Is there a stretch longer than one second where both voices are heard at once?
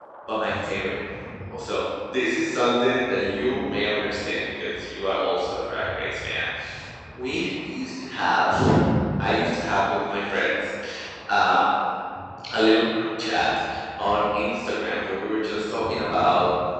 No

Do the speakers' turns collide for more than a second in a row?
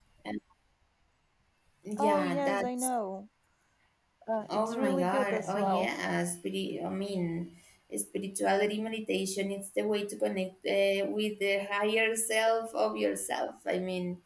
Yes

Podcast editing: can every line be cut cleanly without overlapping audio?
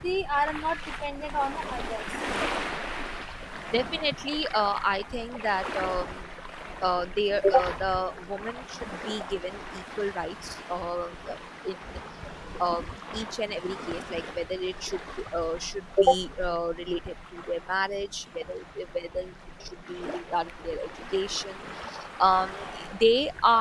Yes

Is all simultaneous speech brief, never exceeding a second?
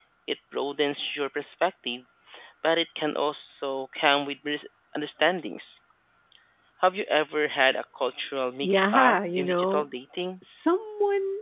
No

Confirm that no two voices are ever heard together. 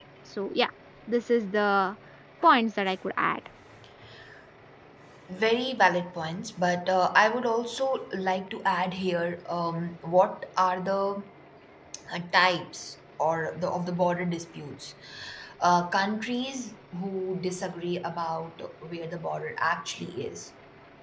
Yes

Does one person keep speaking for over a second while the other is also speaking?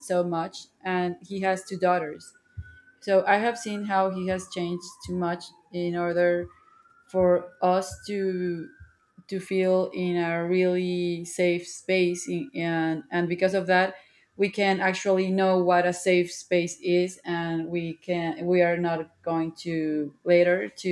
No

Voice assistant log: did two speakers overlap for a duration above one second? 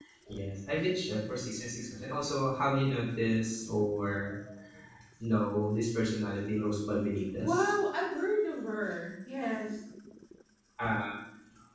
No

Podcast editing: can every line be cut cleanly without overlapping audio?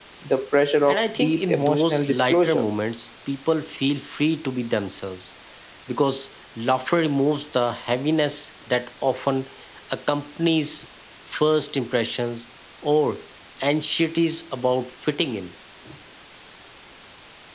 No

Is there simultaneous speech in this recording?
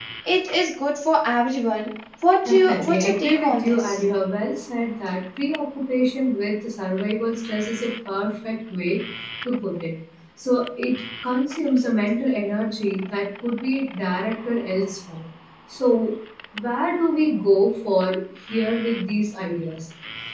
Yes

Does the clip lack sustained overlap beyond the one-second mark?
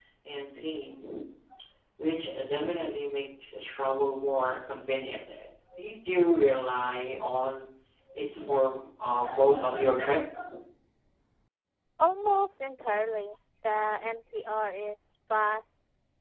Yes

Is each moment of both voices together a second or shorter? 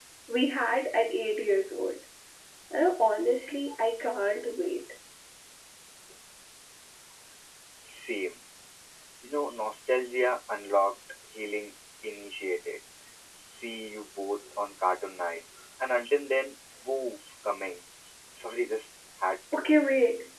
Yes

